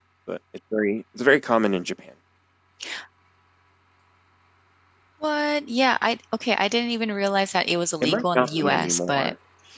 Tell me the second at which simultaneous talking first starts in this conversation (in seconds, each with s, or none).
8.0 s